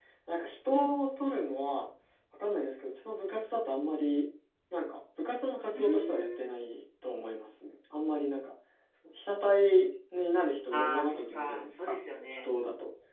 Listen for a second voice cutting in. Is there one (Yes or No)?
Yes